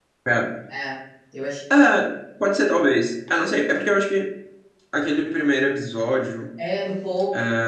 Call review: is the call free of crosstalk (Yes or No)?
Yes